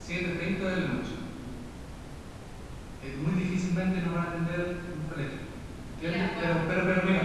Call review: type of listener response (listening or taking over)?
listening